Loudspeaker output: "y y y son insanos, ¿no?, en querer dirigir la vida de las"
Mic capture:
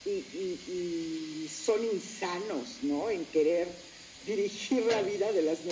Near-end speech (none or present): none